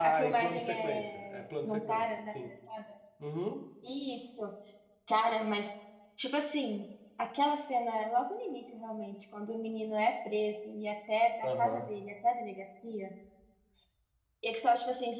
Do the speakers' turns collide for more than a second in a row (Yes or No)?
Yes